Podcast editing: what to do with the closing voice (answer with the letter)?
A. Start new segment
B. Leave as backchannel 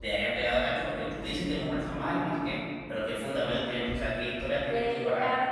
A